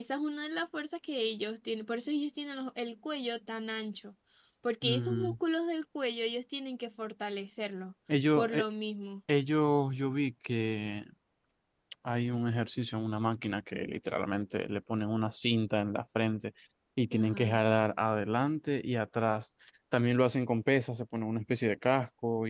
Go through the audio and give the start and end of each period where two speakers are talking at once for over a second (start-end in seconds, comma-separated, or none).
none